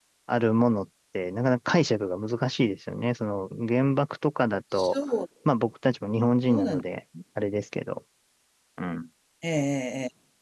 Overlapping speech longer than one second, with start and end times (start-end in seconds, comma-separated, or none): none